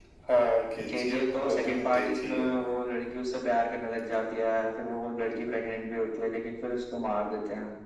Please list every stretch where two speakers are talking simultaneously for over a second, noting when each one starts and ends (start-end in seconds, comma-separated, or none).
0.9-2.5